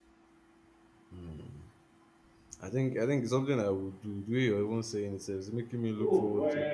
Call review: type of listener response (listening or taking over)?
taking over